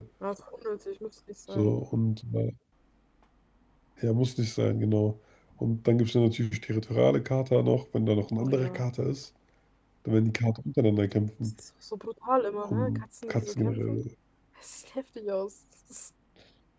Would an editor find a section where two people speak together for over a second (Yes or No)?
Yes